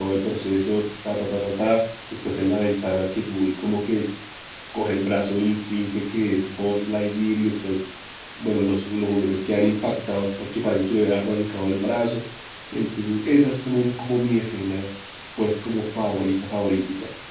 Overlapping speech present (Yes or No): No